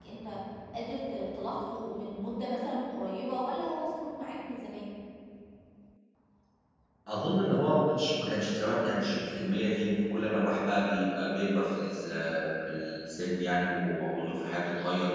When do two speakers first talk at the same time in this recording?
none

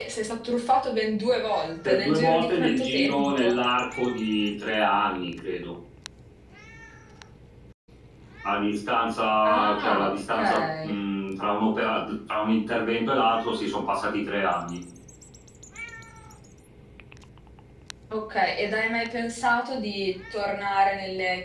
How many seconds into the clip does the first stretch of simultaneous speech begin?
1.9 s

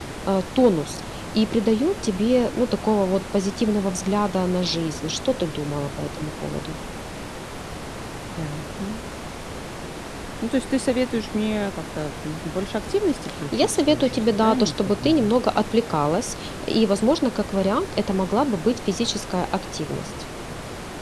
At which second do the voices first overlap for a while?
13.5 s

